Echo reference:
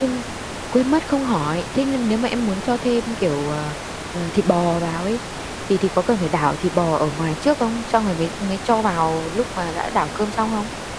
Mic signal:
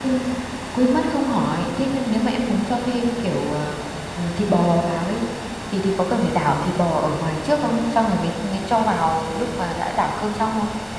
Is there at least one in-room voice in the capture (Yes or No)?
No